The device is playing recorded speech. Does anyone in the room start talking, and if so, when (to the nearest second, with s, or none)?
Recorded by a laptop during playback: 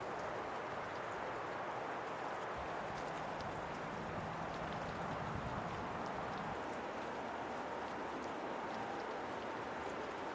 none